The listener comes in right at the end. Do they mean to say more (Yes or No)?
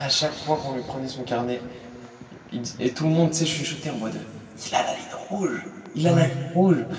No